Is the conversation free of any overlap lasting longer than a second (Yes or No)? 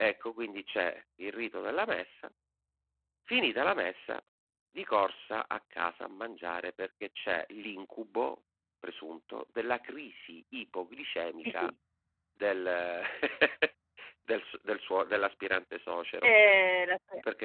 Yes